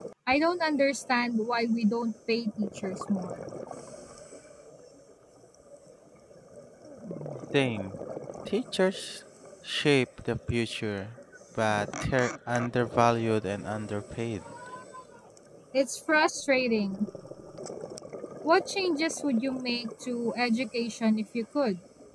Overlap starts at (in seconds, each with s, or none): none